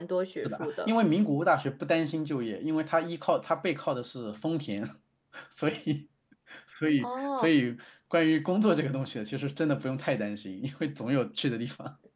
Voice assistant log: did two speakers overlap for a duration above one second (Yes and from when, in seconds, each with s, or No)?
No